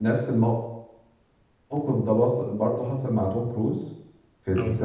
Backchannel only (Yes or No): Yes